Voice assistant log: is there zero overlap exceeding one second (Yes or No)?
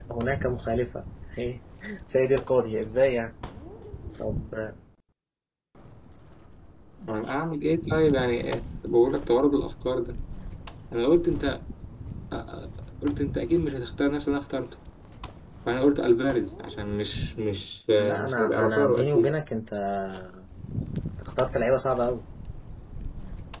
No